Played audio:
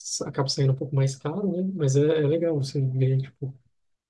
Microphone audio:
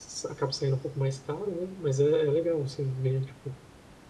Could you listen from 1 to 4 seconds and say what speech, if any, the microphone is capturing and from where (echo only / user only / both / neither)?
echo only